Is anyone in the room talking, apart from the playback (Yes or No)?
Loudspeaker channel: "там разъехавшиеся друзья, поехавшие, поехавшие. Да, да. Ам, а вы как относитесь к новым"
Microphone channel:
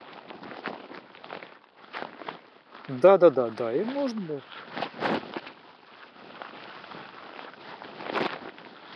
Yes